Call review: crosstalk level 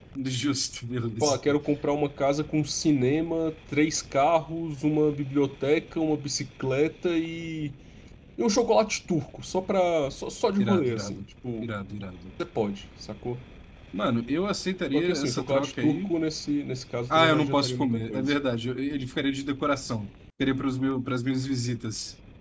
present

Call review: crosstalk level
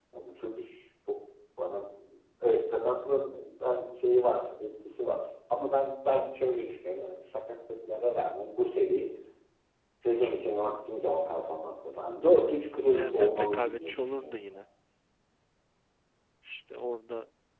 present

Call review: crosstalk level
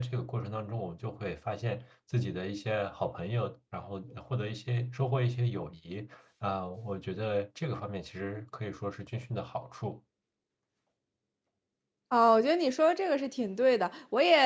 none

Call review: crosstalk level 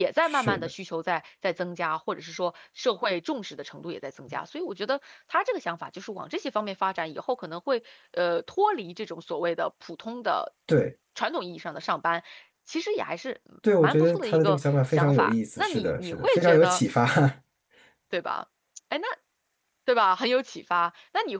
present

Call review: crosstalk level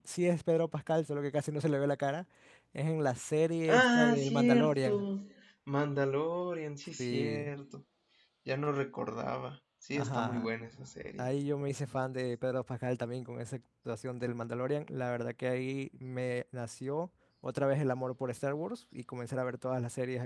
present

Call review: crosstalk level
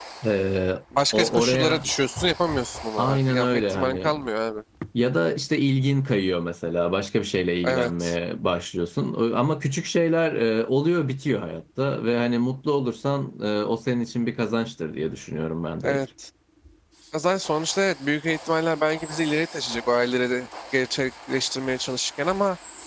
present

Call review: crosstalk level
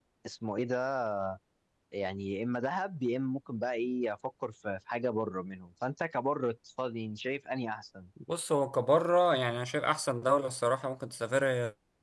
none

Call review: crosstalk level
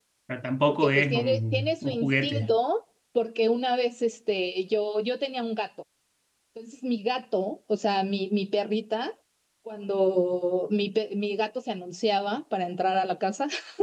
present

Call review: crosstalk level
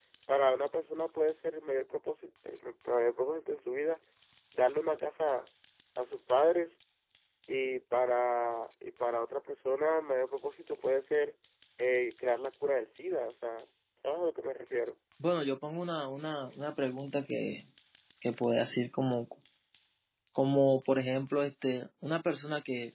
none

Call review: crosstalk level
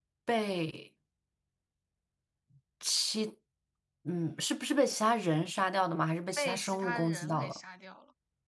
present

